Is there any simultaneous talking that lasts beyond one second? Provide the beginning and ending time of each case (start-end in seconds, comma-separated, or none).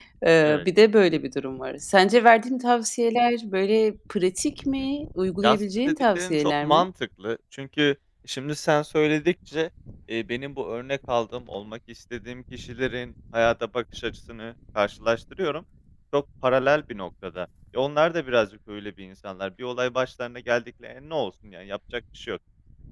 5.4-6.8